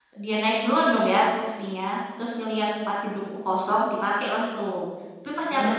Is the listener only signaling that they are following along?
Yes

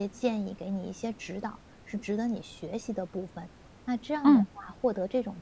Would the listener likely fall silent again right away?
Yes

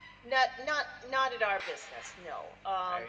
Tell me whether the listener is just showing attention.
Yes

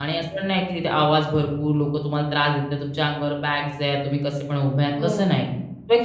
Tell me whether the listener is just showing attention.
Yes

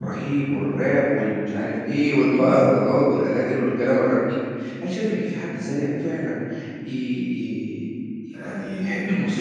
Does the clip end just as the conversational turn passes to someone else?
No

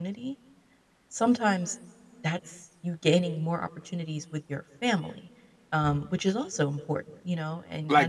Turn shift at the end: Yes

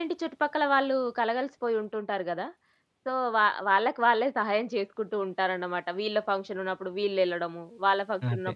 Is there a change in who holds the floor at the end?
No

